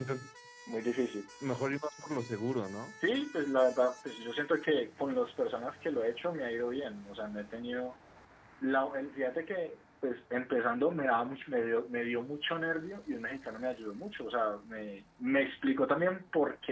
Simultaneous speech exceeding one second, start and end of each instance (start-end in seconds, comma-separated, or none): none